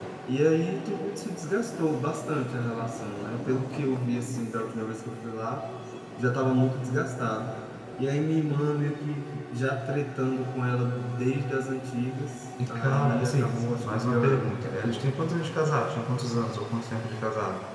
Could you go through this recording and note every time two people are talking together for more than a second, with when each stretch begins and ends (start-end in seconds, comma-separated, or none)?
12.7-14.6